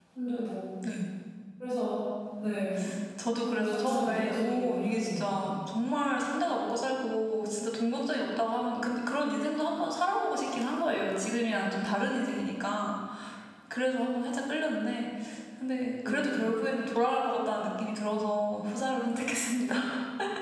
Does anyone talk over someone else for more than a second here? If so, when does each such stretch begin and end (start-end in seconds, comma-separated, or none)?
3.4-5.2